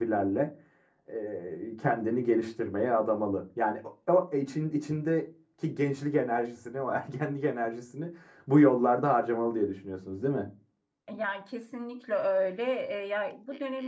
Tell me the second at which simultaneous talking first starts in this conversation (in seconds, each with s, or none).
none